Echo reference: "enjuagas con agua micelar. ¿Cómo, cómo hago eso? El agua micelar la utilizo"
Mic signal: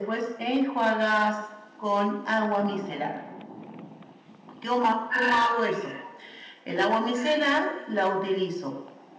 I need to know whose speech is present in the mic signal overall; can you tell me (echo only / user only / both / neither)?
echo only